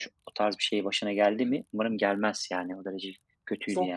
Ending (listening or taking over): taking over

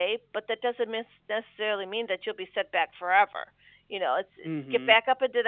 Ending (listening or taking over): listening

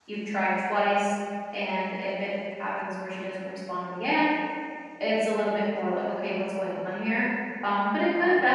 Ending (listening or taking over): listening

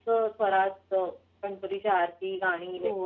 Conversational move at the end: taking over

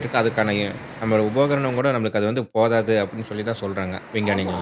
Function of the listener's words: taking over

